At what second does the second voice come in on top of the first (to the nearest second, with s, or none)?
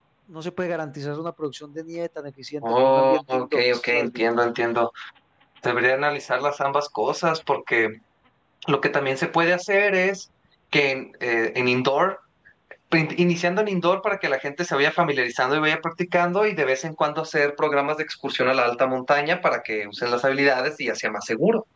3 s